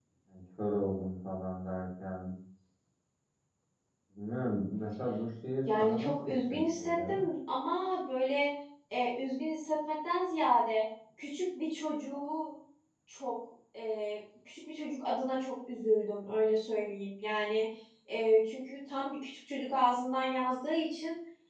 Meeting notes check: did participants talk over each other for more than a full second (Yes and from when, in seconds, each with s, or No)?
Yes, from 5.6 s